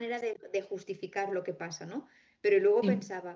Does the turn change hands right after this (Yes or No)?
No